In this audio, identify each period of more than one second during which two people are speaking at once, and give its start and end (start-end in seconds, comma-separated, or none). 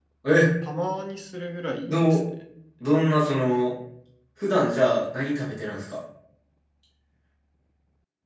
none